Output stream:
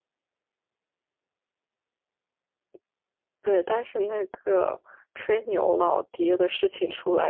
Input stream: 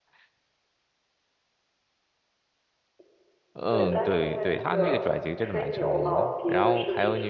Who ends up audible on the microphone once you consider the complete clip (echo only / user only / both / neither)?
both